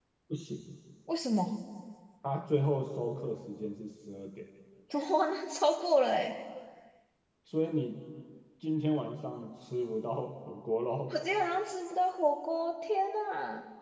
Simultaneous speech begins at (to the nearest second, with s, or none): none